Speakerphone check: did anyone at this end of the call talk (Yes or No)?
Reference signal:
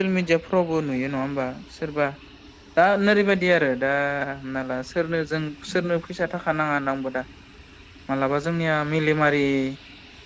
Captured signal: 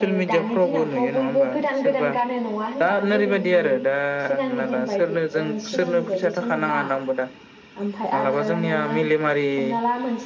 Yes